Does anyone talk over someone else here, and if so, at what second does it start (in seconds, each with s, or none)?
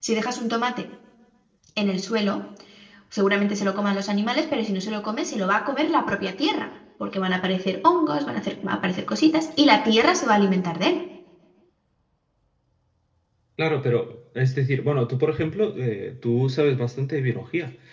none